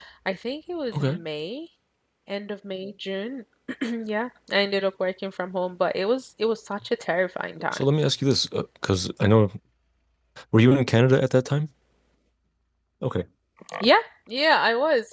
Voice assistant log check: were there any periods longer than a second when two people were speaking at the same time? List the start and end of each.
none

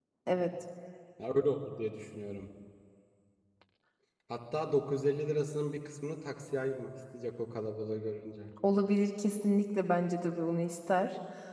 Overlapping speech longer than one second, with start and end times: none

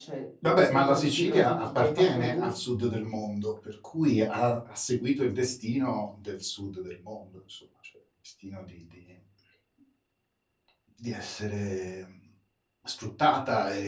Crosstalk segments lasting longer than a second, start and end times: 0.5-2.5

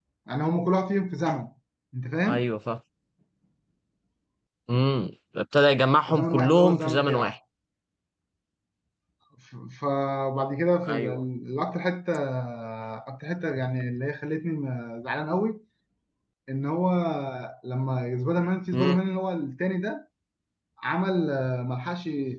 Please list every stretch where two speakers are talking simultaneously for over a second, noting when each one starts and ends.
6.1-7.3

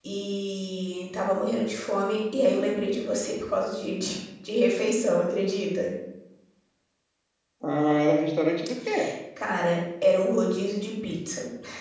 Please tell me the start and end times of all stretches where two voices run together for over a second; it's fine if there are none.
none

